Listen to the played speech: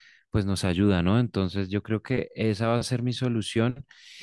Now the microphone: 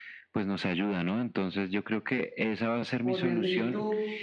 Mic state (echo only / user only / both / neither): both